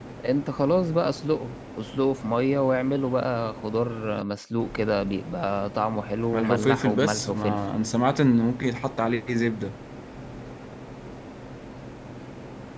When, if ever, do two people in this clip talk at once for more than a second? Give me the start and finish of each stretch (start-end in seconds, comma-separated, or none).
6.3-7.6